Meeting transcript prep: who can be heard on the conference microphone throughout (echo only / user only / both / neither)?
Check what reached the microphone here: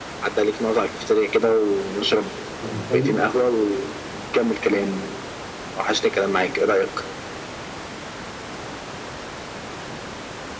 both